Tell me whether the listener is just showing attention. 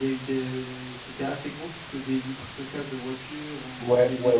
No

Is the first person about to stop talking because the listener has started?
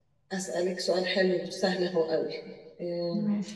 No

